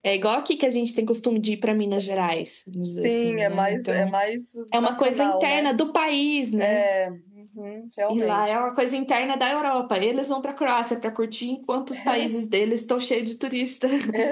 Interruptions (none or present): present